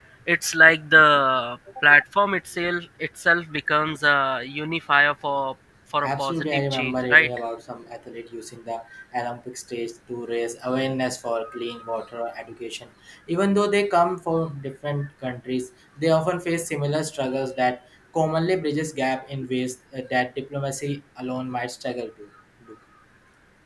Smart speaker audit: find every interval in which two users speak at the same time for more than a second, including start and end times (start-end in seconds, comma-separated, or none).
6.0-7.3